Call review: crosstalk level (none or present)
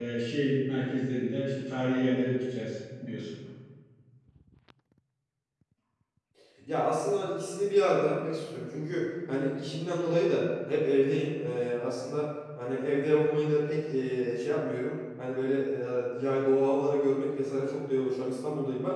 none